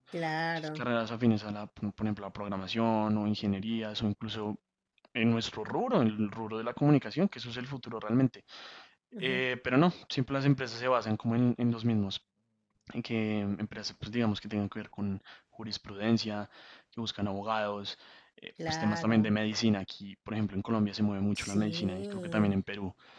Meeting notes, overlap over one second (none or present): present